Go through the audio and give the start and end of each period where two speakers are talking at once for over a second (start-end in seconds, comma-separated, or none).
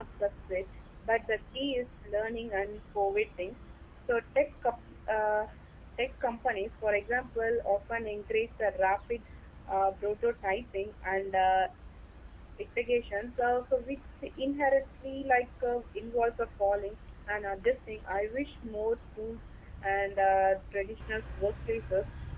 none